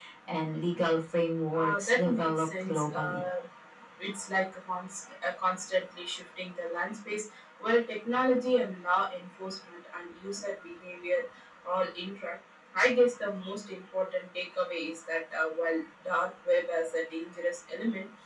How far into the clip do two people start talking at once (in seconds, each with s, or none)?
1.5 s